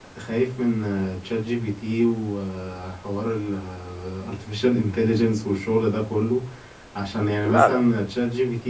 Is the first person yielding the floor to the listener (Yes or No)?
No